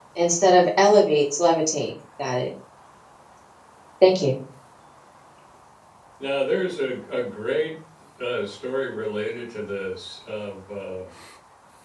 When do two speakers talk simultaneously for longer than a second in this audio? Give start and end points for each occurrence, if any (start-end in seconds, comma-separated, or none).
none